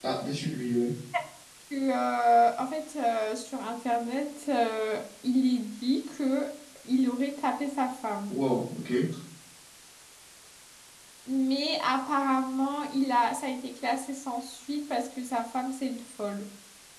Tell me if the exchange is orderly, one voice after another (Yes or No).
Yes